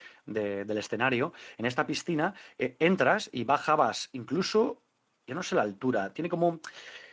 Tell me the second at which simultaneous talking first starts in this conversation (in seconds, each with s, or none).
none